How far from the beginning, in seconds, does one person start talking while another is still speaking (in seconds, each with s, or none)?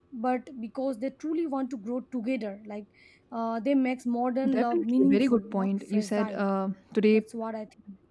4.4 s